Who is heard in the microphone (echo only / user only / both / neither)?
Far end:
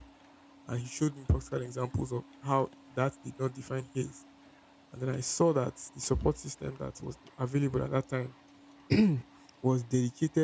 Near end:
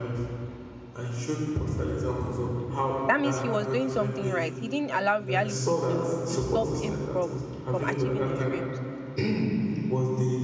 both